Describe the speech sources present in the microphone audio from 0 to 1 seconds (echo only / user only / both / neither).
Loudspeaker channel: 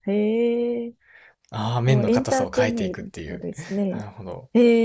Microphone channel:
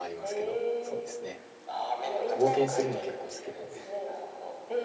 both